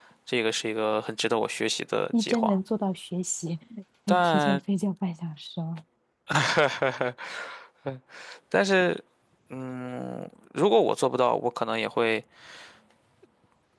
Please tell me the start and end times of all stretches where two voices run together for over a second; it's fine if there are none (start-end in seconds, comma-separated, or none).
none